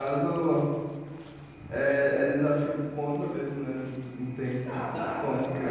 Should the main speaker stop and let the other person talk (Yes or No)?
Yes